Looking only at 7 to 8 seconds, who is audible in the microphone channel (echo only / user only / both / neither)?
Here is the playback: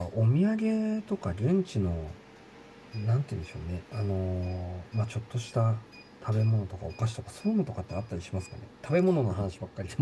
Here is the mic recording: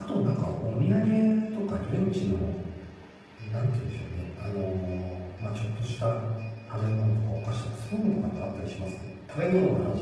echo only